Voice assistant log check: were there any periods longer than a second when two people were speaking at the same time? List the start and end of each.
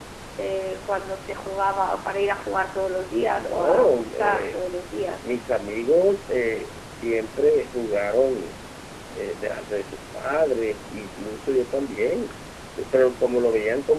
3.3-4.6

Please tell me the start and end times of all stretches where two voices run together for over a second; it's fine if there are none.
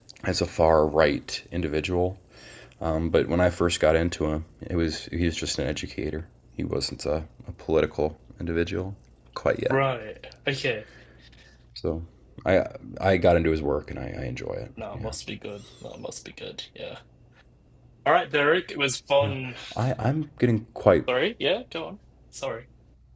none

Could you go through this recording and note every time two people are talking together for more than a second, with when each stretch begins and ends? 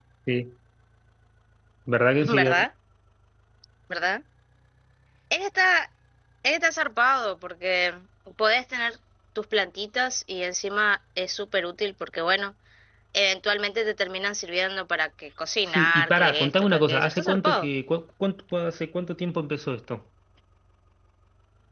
15.7-17.7

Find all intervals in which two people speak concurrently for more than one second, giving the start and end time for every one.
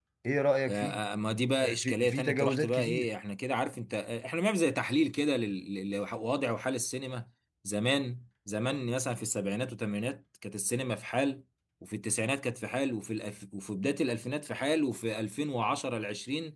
1.6-3.1

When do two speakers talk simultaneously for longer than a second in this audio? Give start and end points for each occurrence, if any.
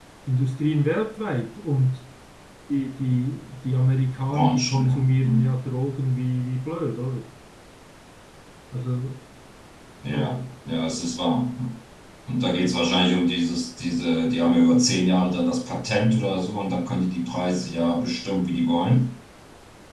4.3-5.5

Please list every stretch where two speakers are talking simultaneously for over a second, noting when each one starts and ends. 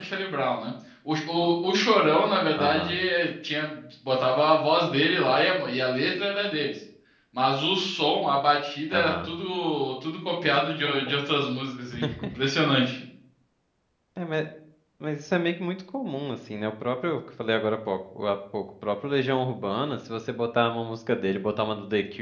none

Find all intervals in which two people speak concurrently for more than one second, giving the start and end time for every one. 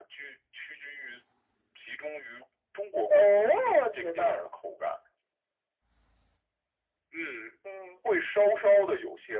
3.1-4.5

